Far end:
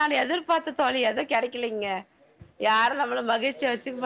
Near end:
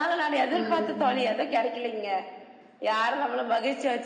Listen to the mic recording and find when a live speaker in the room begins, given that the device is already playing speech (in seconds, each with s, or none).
0.6 s